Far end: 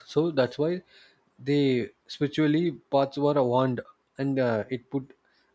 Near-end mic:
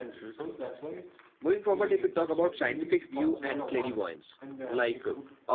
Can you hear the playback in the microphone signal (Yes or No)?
Yes